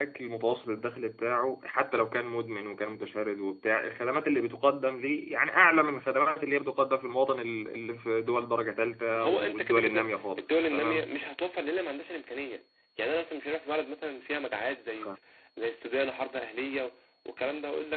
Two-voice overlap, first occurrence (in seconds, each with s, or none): 9.1 s